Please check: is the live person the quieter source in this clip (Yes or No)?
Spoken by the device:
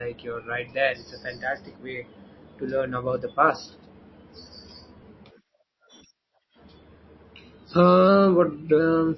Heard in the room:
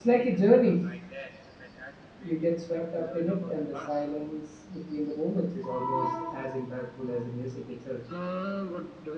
No